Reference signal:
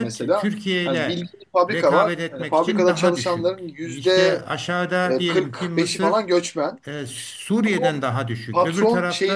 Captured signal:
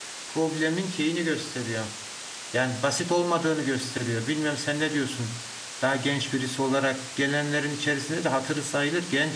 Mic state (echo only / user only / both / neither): user only